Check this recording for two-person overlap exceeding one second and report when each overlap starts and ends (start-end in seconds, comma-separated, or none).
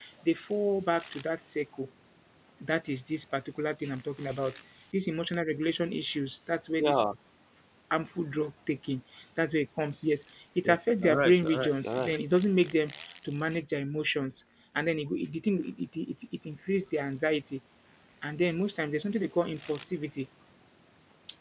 10.6-12.1